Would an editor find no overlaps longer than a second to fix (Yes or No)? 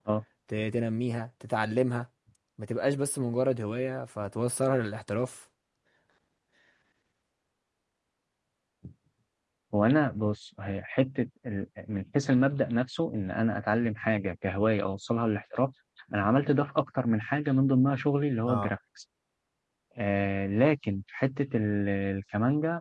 Yes